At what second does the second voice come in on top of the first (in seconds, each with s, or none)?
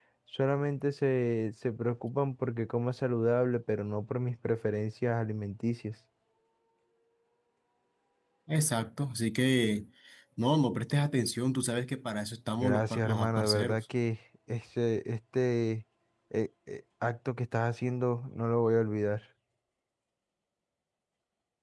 12.6 s